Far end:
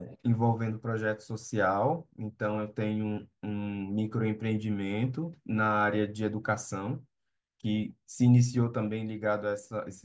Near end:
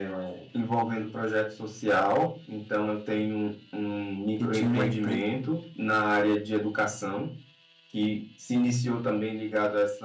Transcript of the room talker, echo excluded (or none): que tinha uma empresa,